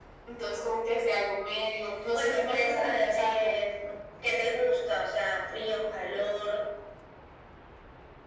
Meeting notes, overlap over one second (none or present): present